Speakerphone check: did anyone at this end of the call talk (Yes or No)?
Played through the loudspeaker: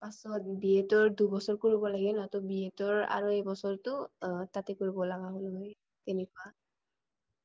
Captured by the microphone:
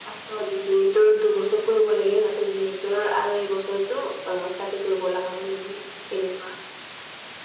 No